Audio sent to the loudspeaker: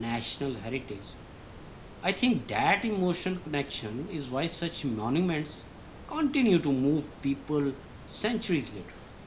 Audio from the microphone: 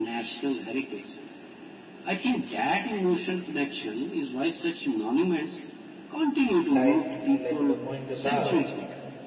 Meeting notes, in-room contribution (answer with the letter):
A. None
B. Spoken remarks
B